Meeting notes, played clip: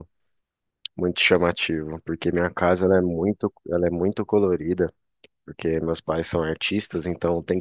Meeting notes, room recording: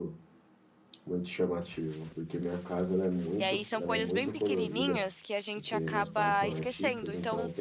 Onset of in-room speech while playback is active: 3 s

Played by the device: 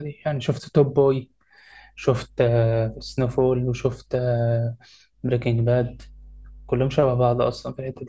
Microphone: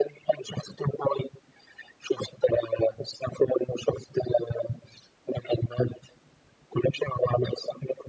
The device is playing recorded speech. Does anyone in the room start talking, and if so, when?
none

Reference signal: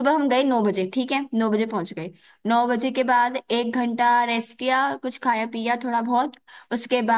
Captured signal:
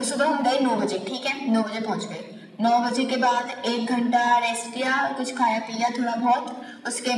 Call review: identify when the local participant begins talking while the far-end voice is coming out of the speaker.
none

